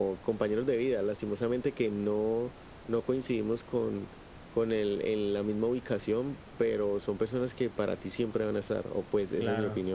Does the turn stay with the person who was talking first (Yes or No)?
No